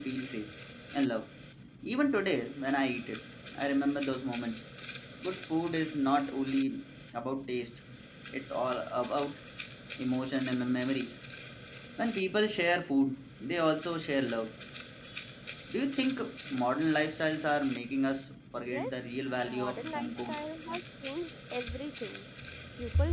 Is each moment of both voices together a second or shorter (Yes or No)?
No